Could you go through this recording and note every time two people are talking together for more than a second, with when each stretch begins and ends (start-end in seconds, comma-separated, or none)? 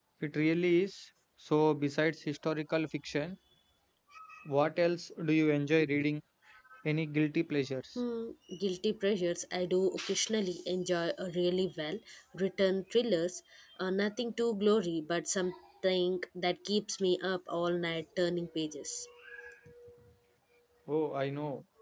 none